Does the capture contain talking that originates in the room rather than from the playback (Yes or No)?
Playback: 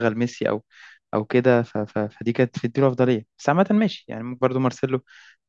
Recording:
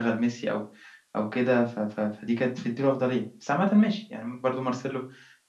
No